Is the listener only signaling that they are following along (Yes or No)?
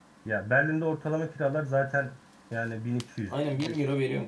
No